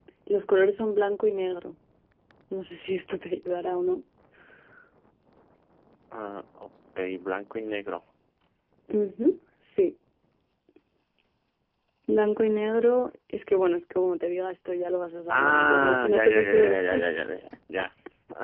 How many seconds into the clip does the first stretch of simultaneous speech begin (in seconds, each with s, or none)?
15.3 s